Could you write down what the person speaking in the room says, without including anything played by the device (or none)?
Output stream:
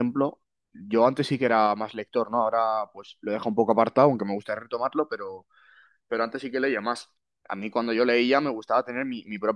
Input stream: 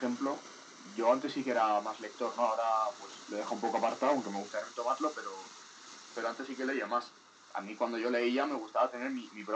none